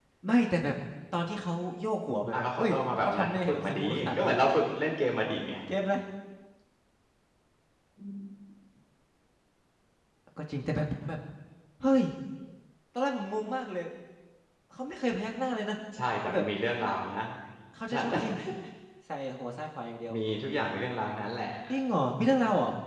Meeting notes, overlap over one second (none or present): present